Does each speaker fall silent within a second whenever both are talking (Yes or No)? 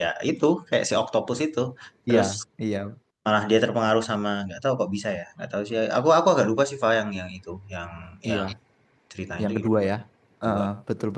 Yes